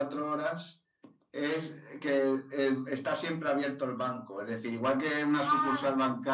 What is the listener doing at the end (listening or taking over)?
listening